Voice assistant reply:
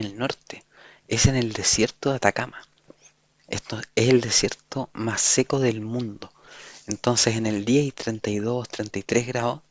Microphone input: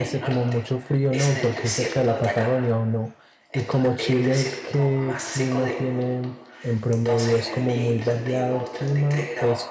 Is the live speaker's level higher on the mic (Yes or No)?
Yes